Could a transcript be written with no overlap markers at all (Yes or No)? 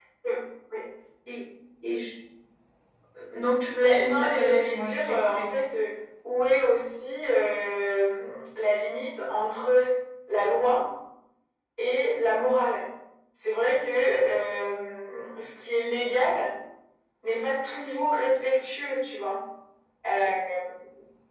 No